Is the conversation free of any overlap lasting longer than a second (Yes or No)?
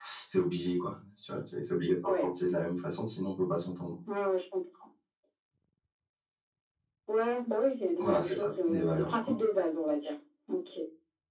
No